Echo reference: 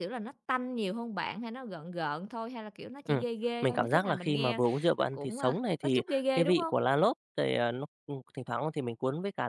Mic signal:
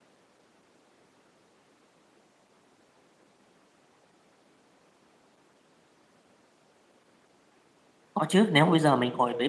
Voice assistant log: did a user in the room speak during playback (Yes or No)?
Yes